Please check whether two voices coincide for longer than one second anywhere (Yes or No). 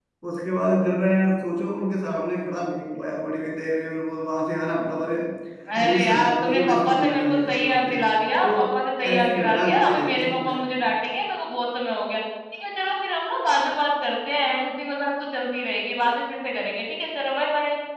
Yes